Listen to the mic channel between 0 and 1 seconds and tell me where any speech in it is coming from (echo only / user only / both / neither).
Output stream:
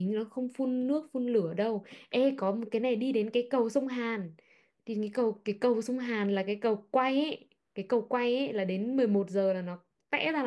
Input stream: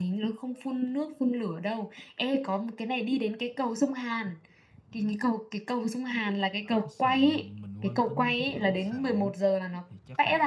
echo only